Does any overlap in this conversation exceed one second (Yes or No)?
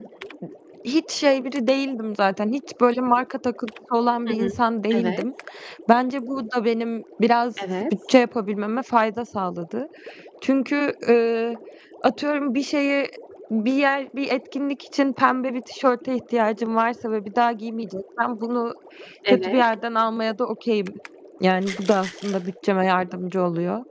No